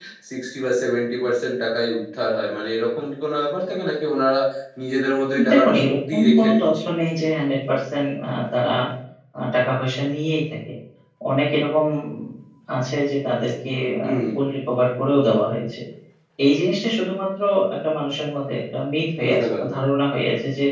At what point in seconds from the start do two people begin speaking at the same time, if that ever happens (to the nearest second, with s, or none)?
6 s